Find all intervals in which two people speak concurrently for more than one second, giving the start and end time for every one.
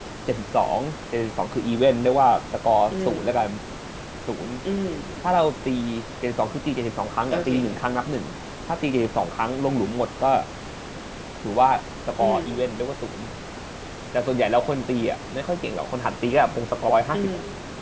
none

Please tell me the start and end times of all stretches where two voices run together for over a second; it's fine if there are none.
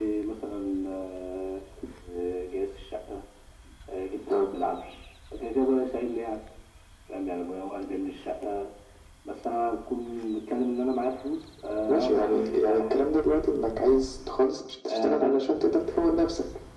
11.9-13.1

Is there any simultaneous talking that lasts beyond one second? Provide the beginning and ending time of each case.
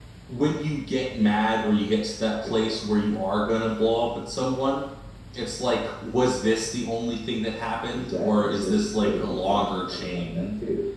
7.9-10.5

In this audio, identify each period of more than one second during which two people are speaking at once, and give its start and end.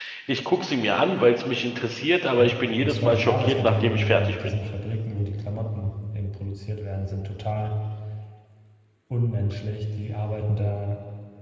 2.4-4.3

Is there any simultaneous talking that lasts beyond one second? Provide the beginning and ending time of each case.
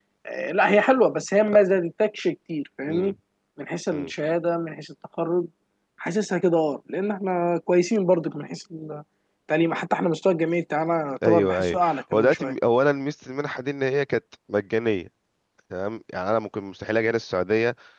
11.2-12.5

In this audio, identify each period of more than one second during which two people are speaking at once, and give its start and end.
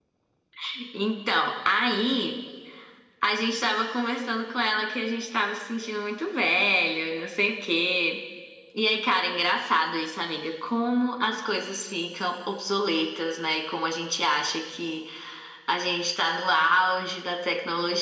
none

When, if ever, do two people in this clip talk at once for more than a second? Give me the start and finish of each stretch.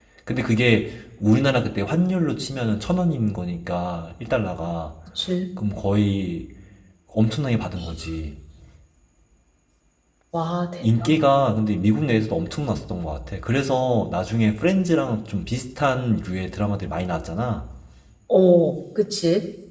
none

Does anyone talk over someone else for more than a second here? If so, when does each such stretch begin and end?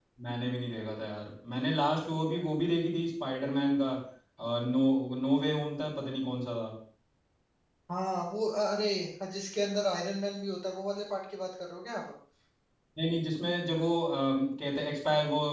none

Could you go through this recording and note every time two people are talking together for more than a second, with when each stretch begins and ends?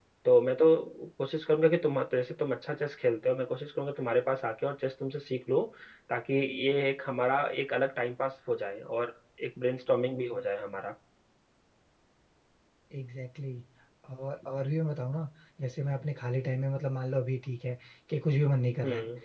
none

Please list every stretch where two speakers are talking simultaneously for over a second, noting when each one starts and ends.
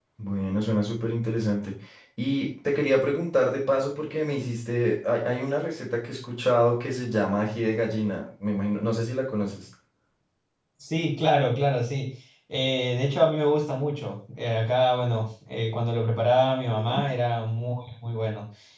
none

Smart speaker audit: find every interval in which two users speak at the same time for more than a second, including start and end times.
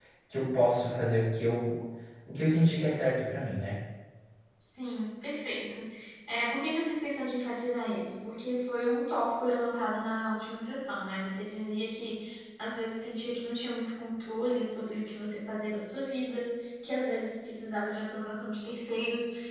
none

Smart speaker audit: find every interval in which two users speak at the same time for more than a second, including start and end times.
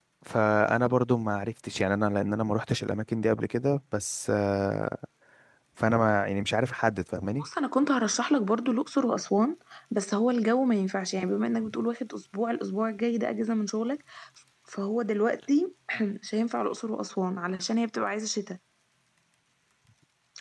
none

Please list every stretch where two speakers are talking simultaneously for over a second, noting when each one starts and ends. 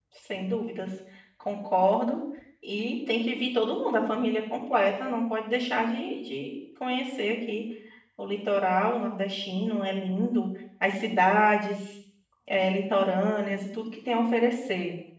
none

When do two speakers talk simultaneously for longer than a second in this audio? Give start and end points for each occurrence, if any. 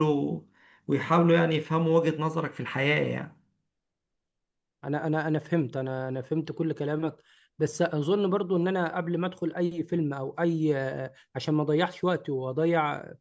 none

